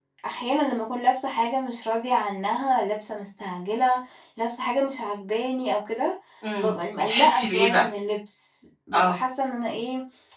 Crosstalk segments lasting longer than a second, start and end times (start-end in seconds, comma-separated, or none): 6.6-7.9